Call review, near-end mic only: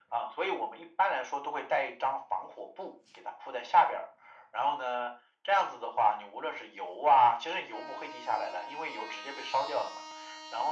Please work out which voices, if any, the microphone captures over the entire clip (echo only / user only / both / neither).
echo only